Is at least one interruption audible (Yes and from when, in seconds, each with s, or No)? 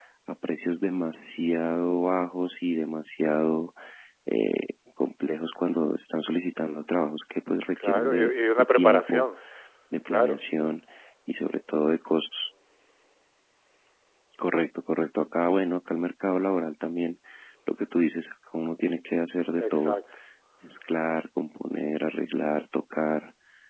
Yes, from 7.8 s